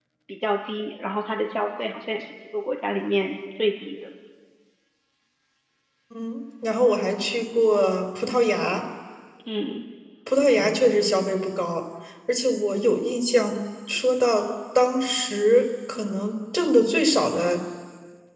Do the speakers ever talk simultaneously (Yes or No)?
No